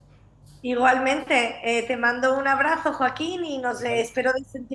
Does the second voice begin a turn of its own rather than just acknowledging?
No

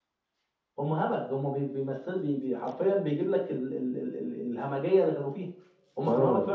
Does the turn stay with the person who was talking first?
No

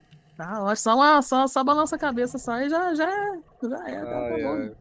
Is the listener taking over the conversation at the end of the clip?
Yes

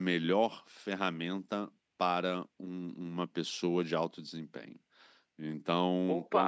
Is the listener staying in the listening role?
Yes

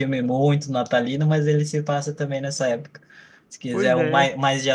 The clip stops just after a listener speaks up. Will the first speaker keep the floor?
Yes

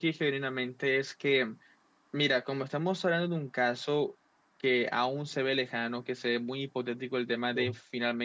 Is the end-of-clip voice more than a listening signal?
No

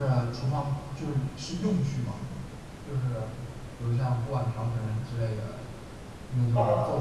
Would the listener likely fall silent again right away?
Yes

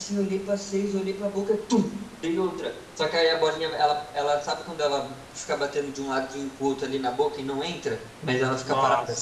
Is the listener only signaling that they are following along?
Yes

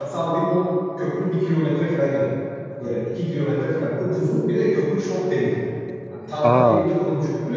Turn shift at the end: No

